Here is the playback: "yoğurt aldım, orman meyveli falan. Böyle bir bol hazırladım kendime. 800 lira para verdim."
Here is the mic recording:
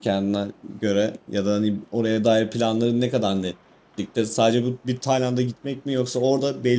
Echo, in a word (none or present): none